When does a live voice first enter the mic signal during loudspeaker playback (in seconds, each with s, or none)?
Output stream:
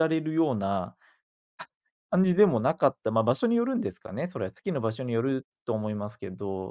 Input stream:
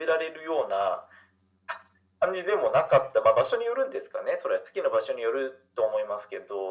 none